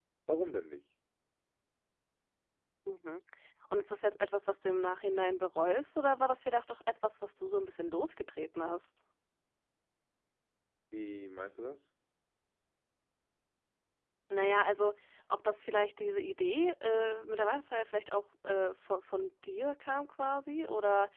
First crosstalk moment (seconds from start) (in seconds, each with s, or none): none